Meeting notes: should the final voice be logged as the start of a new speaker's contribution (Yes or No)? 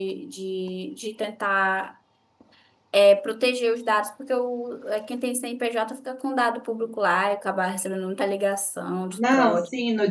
Yes